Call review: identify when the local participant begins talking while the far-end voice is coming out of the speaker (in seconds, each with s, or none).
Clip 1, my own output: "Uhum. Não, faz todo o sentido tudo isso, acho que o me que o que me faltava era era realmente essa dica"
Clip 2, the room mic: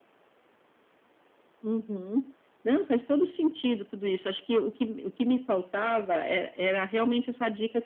none